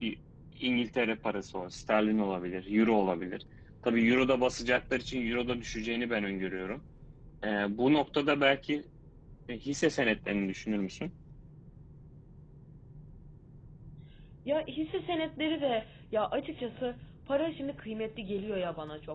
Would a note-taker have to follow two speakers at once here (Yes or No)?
No